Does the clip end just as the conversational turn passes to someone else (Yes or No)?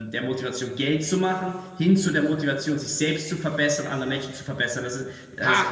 Yes